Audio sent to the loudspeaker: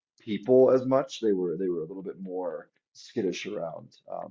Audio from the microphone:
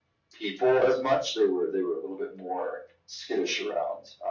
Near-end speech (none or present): none